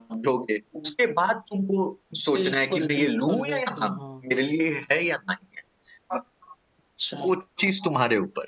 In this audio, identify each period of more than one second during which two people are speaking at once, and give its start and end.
2.3-4.0

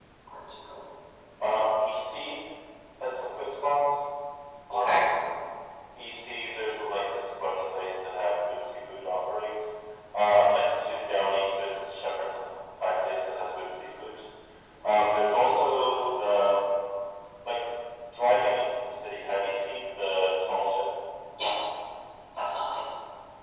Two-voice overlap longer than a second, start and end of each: 14.8-16.3

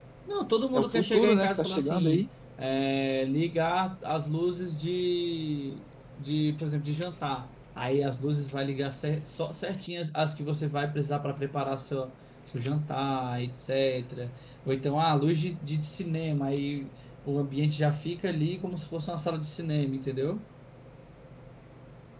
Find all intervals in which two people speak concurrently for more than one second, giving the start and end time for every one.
0.7-2.2

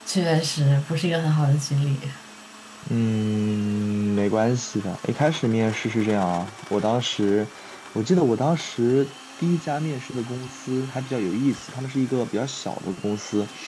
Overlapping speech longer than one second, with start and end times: none

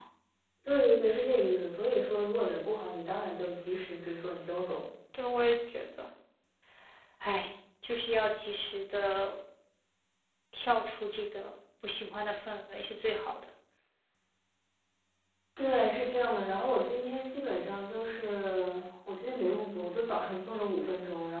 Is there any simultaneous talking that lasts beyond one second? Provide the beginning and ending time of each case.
none

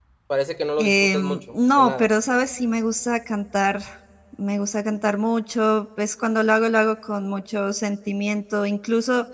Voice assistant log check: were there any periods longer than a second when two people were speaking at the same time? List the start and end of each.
0.8-2.1

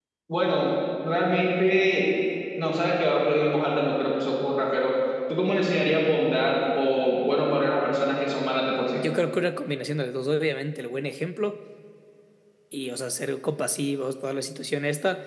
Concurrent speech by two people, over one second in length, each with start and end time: none

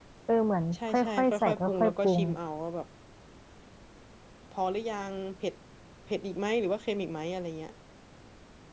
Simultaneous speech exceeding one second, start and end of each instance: 0.7-2.2

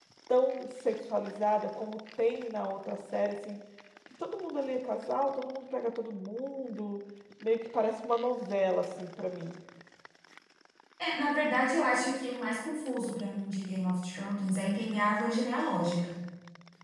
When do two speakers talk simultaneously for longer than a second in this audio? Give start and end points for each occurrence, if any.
none

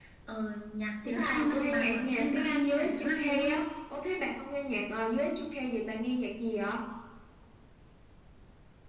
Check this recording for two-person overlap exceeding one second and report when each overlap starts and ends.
1.1-3.6

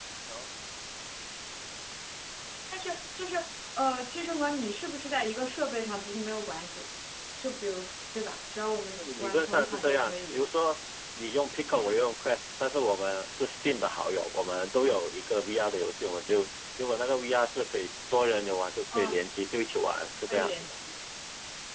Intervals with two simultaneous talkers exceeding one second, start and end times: 9.0-10.4

